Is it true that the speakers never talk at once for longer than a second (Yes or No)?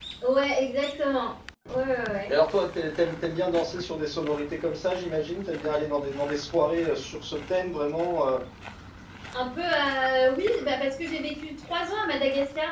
Yes